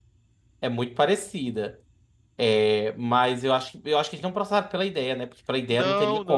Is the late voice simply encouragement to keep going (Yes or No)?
No